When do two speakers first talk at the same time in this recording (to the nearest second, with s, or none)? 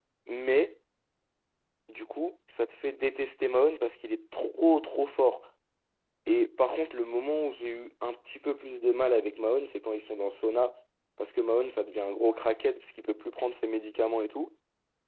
none